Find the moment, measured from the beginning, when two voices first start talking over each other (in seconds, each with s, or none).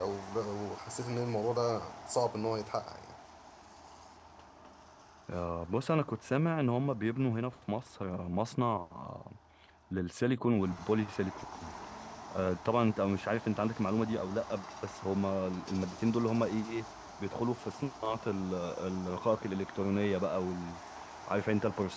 none